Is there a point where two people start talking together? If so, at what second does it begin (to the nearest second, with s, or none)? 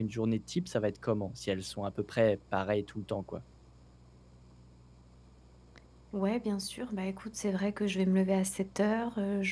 none